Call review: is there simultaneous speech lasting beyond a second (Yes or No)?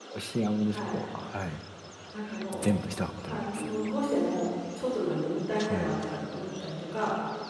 No